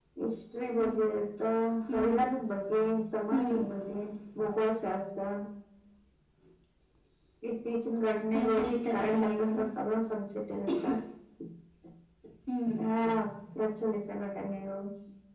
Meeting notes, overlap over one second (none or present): present